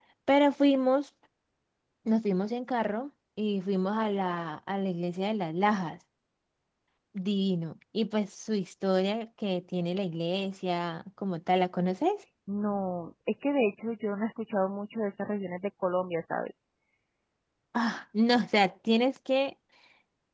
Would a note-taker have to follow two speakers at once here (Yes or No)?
No